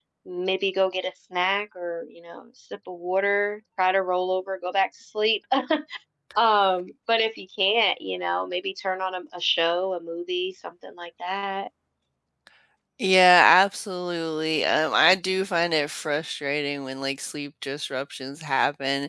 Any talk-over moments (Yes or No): No